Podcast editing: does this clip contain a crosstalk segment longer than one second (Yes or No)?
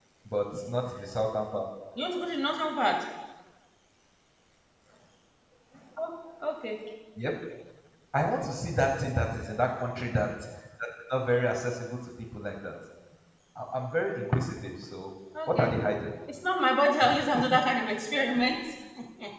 No